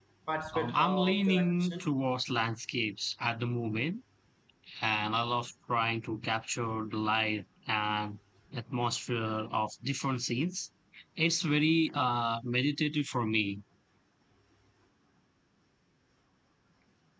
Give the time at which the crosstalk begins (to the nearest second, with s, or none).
1 s